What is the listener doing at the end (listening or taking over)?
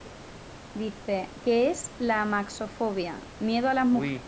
listening